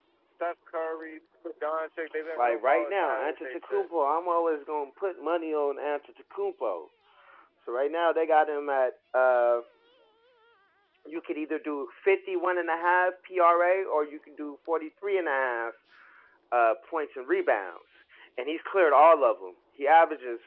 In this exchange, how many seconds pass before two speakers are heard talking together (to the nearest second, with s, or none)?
2 s